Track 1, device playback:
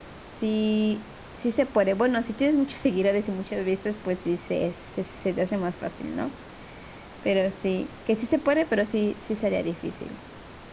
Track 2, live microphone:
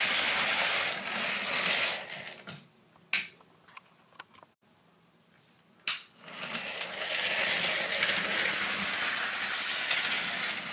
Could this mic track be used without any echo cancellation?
Yes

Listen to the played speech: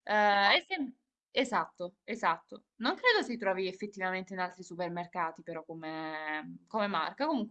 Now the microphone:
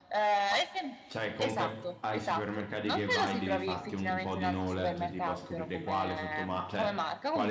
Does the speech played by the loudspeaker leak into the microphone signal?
Yes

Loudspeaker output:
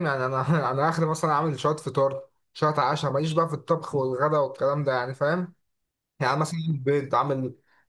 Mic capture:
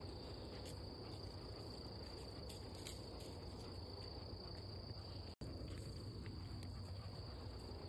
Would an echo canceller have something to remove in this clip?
No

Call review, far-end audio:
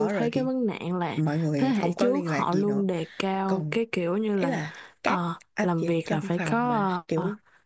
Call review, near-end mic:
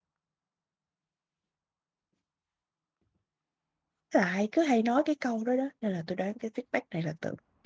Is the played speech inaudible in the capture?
Yes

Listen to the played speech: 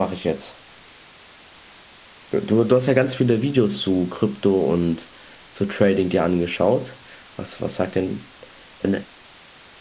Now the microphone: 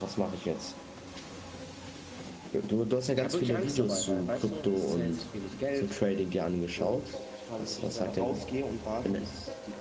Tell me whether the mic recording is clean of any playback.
No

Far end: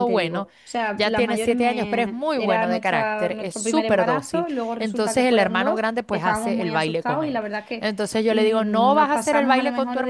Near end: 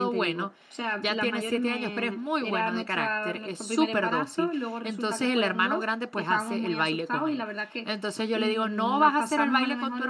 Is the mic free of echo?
No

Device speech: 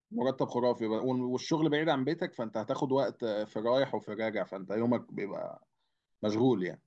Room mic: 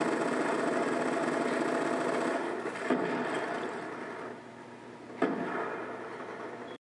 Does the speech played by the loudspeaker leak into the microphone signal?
No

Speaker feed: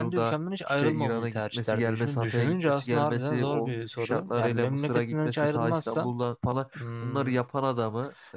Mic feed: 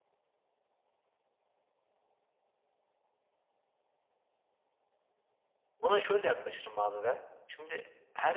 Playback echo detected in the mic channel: No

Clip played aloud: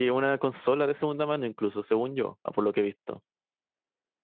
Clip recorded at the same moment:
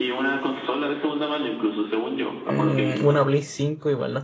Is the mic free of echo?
No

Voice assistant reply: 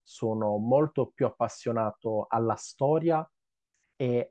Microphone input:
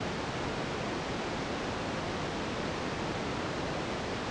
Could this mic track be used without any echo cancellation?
Yes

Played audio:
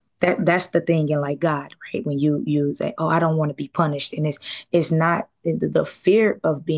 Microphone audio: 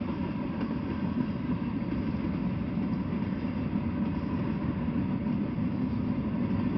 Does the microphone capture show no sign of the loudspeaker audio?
Yes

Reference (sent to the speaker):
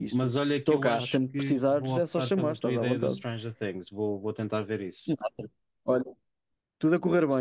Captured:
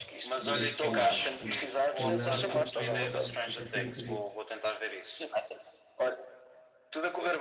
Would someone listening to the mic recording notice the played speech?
Yes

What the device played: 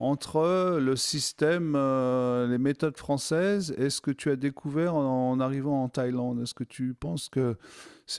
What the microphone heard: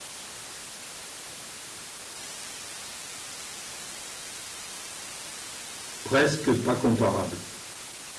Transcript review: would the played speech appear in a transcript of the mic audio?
No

